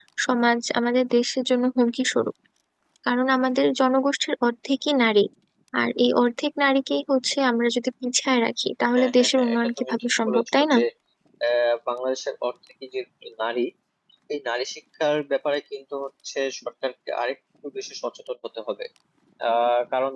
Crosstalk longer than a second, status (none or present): present